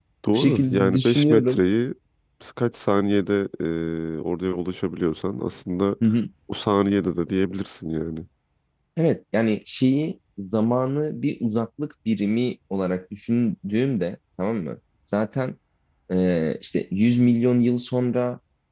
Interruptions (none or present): present